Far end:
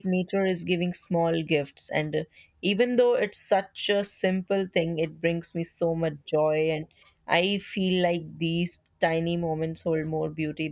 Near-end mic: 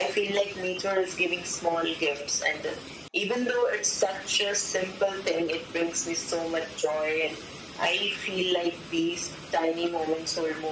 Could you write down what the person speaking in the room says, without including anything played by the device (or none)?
none